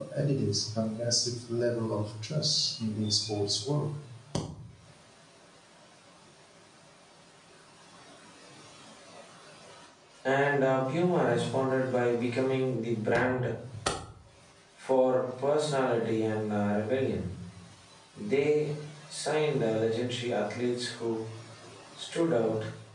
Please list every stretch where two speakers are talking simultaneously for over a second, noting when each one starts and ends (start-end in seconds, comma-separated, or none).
none